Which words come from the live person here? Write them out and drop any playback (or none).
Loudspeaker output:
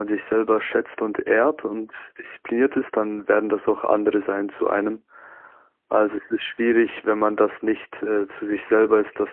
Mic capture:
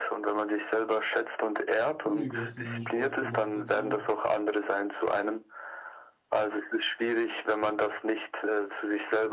viel gegessen, Sport gemacht und so.